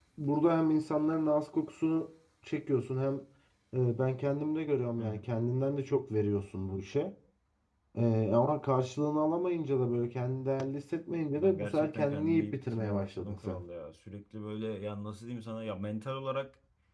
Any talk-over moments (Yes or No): Yes